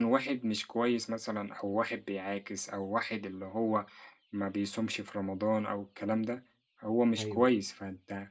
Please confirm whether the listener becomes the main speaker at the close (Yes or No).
No